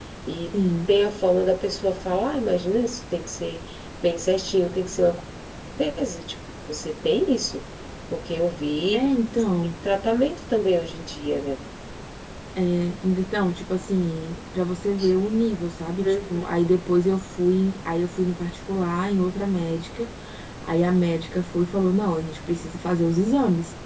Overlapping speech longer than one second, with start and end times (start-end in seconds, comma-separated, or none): none